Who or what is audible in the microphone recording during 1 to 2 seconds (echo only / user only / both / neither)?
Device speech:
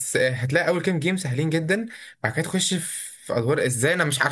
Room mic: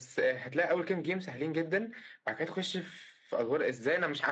echo only